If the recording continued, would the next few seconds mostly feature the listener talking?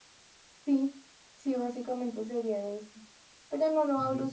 No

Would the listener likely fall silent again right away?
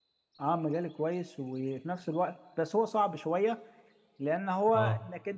Yes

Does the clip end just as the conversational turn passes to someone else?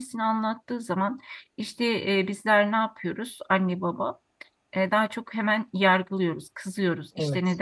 No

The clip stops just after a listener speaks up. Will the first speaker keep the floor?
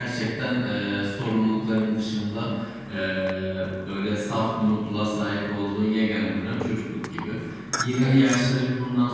Yes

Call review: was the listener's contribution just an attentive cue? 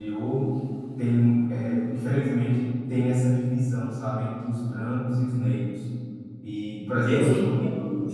No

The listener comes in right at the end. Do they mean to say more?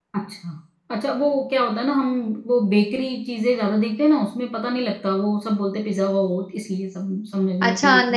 Yes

